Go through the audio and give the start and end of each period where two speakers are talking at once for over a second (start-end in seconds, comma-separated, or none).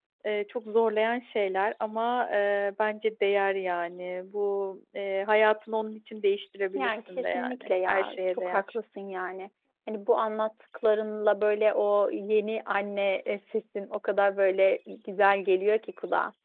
6.8-8.6